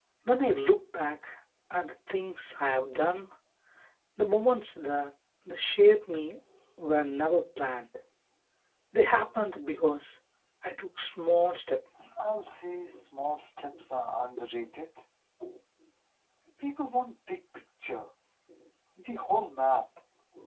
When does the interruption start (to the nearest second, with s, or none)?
none